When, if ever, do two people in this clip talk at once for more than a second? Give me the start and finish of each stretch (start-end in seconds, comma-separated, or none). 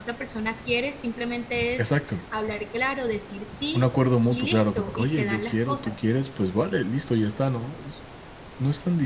4.3-6.1